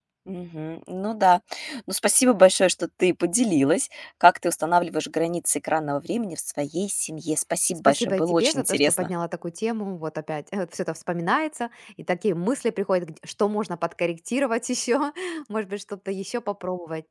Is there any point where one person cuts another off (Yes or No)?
Yes